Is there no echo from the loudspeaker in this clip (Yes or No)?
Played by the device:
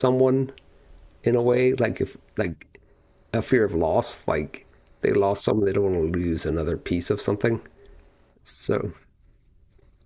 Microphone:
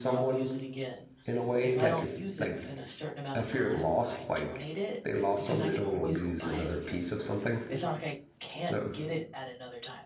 No